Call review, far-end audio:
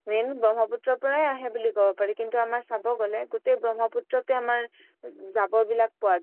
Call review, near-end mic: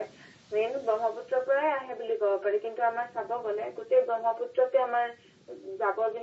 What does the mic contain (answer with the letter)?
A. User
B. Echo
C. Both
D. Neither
B